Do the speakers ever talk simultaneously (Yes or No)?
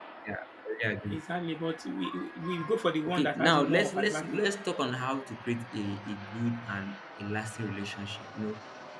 Yes